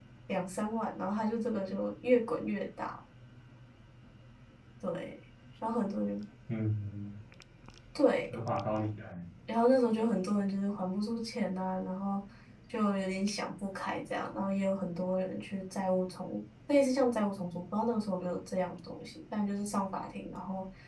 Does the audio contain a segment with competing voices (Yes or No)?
No